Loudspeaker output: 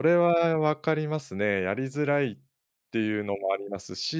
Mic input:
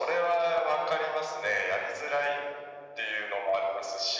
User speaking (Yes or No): No